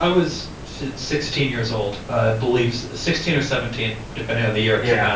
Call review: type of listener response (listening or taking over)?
taking over